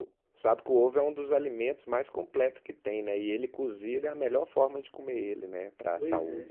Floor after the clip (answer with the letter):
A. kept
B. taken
B